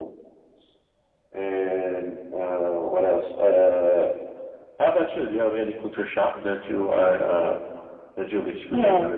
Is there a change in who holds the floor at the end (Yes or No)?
Yes